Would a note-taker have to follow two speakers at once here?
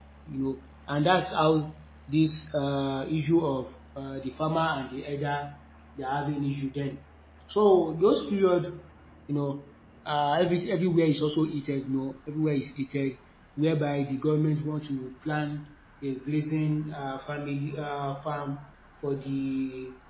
No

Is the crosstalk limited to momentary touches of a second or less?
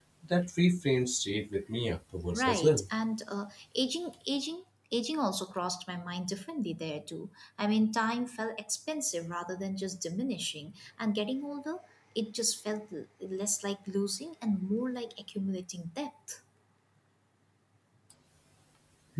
Yes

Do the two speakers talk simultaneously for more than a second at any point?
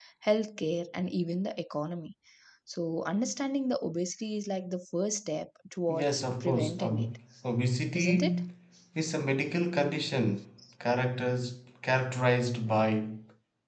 Yes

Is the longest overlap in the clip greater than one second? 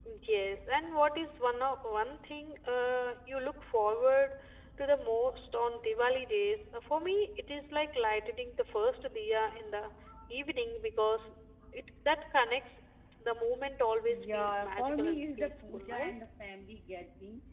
Yes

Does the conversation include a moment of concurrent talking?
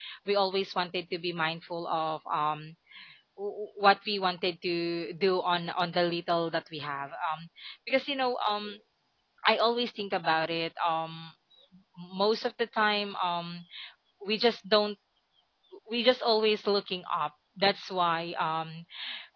No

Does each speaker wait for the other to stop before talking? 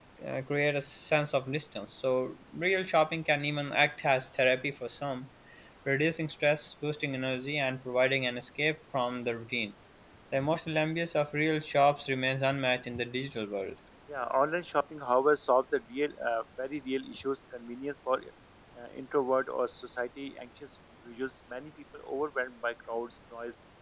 Yes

